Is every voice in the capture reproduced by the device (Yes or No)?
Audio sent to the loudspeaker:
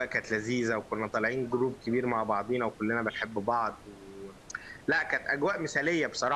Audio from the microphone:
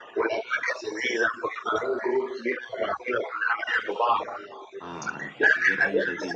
No